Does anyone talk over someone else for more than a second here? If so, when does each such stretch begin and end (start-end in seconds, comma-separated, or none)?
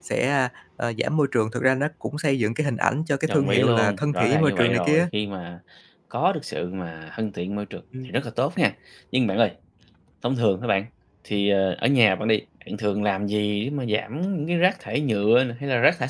3.3-5.1